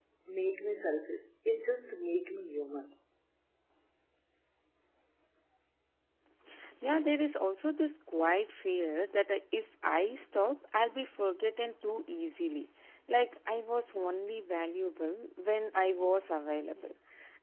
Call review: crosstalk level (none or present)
none